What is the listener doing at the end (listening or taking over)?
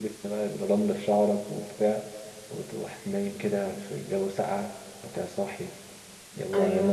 listening